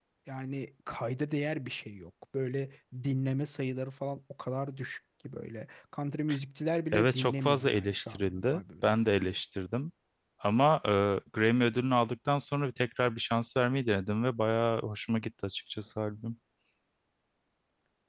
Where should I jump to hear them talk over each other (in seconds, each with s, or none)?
6.9 s